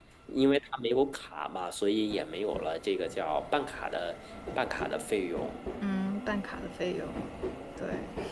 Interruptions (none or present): none